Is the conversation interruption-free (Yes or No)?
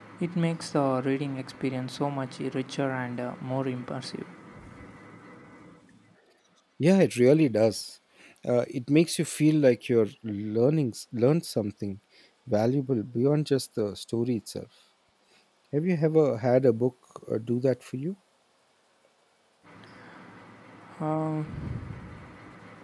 Yes